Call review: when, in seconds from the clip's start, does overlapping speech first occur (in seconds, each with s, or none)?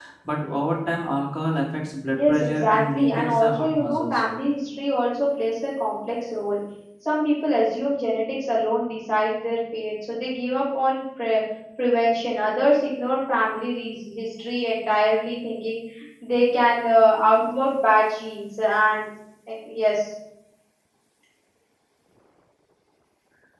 2.1 s